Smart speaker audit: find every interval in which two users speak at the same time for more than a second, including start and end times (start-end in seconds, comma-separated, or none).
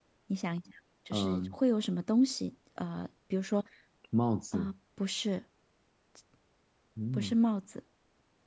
none